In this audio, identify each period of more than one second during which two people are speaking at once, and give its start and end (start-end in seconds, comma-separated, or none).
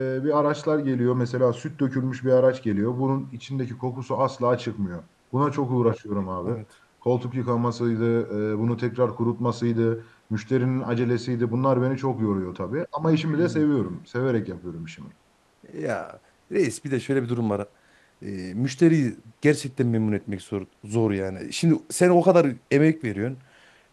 none